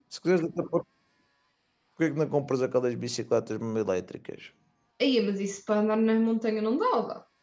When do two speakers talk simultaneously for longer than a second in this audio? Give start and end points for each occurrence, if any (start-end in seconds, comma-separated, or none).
none